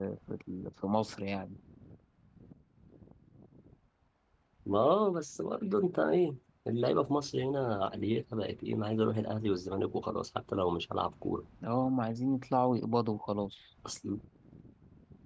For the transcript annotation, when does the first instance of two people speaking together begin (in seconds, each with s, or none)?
none